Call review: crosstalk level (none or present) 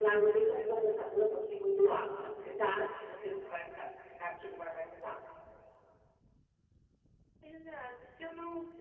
none